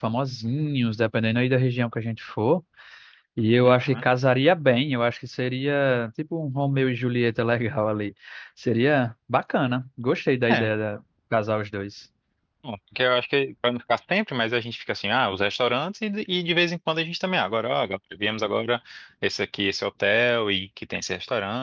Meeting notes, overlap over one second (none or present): none